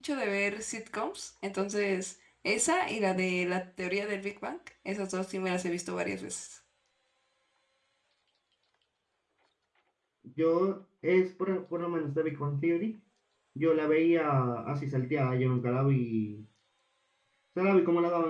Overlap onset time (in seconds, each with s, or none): none